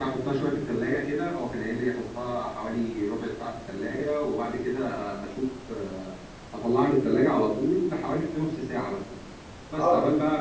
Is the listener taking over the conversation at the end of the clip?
No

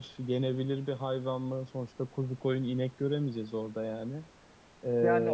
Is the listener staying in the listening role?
No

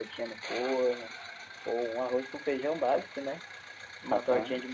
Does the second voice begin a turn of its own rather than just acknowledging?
No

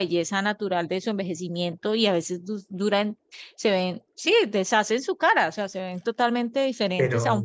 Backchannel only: Yes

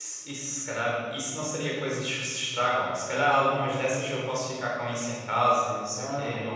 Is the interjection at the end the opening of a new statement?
Yes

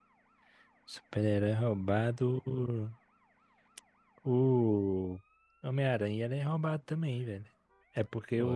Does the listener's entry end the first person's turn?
No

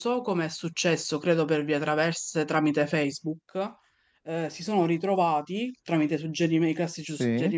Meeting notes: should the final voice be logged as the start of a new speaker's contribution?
No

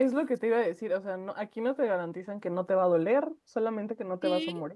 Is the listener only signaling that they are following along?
No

